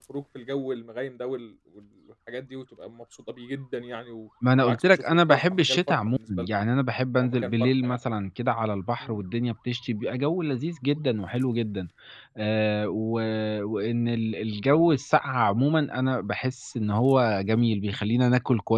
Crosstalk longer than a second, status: present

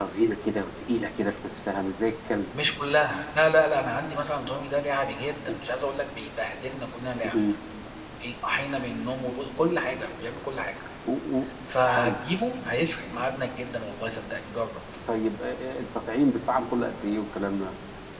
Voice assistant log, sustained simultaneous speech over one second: none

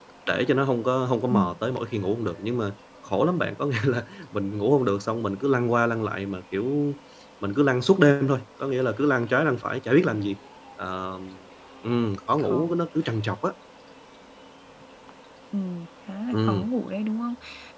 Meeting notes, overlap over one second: none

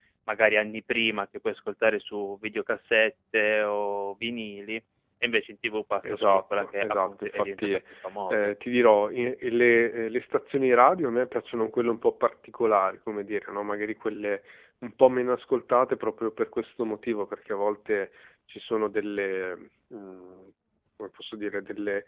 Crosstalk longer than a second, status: present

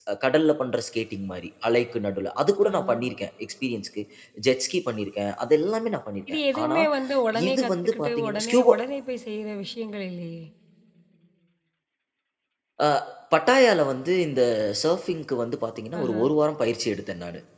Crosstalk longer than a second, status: present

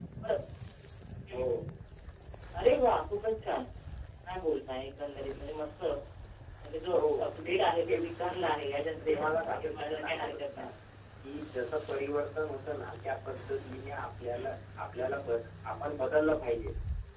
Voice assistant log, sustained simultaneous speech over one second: present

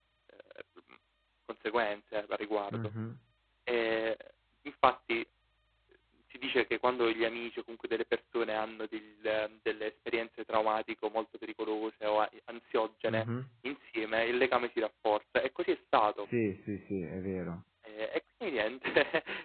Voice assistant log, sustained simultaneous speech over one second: none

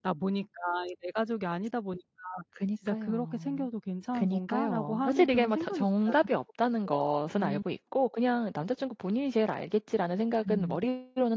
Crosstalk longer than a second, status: present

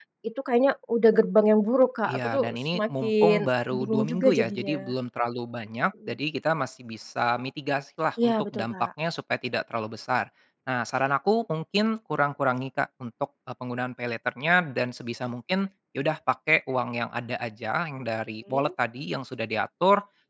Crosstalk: present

